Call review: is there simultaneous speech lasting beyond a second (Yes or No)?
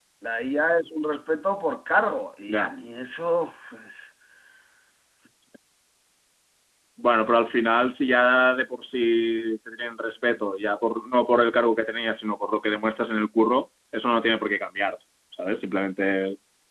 No